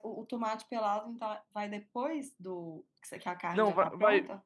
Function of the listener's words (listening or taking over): taking over